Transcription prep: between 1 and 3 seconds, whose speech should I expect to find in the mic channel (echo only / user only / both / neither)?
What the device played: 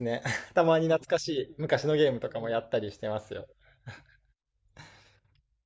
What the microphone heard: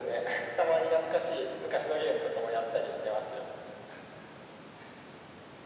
echo only